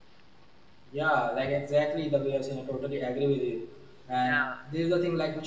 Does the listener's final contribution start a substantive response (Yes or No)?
No